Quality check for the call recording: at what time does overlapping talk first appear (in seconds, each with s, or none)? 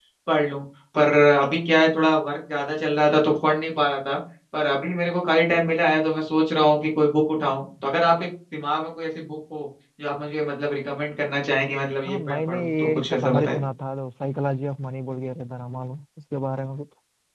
12.1 s